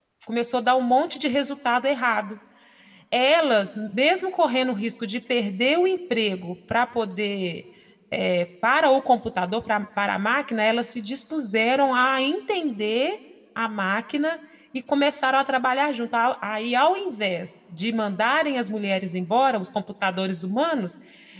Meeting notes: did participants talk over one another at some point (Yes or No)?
No